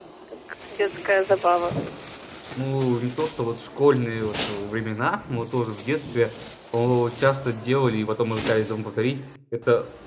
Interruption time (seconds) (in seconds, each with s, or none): none